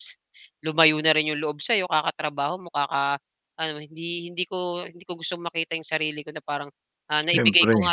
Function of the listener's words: listening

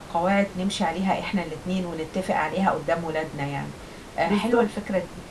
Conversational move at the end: listening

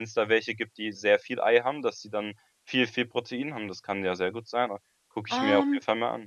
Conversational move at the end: taking over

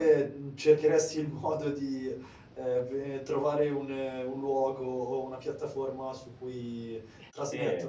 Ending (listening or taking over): taking over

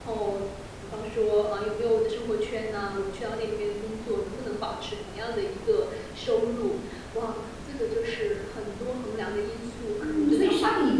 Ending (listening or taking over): taking over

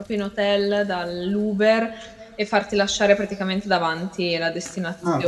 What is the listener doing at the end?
taking over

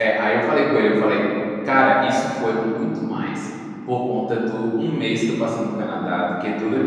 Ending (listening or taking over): listening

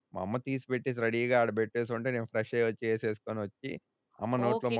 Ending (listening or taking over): taking over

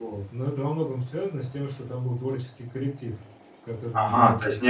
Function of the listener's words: taking over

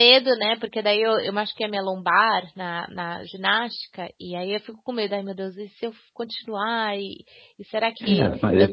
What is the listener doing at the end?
taking over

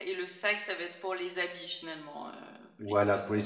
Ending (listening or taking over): taking over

